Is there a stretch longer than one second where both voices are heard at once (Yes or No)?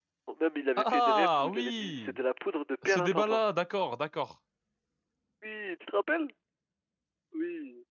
Yes